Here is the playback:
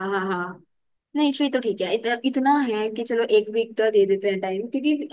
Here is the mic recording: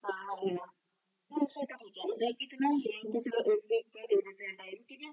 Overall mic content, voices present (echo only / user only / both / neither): echo only